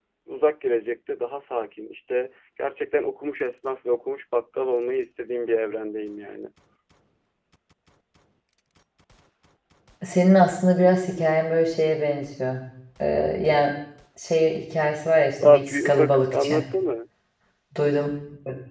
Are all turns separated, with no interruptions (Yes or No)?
No